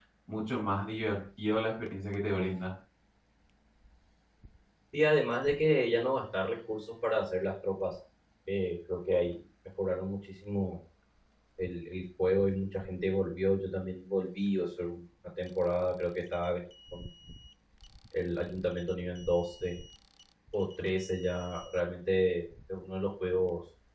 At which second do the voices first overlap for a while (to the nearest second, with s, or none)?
none